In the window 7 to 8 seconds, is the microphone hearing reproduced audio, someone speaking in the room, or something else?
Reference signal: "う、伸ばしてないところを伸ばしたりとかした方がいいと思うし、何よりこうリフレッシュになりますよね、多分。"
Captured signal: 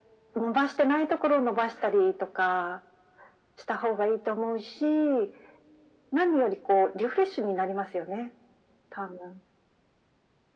echo only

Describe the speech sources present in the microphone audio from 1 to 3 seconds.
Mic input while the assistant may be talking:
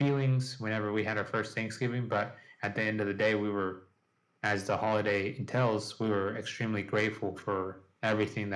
echo only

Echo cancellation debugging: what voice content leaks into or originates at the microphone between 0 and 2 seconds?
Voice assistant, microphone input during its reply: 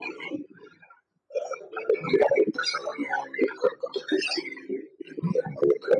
echo only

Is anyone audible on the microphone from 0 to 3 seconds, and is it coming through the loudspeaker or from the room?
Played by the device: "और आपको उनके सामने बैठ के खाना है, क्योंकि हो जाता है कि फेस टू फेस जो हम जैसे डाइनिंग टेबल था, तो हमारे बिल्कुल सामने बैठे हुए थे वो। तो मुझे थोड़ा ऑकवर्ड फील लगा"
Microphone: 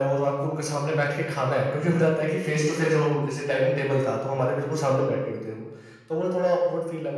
echo only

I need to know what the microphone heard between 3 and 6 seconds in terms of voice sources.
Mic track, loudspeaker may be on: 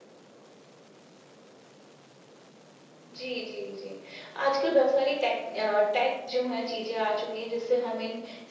echo only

